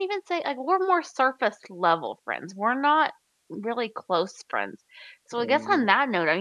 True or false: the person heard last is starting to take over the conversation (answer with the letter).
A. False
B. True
A